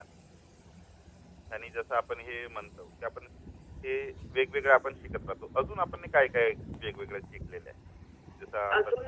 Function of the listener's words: taking over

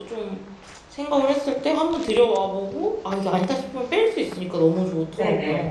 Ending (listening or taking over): taking over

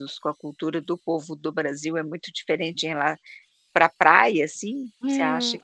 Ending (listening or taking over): taking over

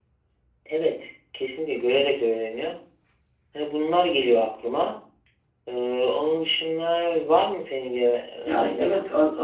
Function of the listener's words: taking over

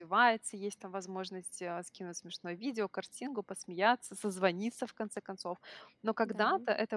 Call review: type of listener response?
listening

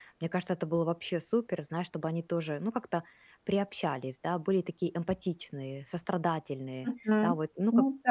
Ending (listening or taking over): taking over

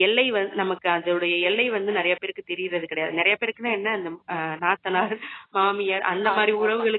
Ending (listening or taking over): listening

